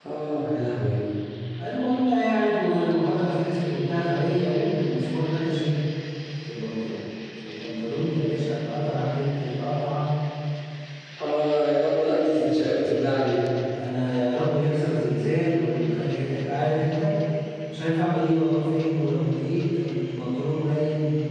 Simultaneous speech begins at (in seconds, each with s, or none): none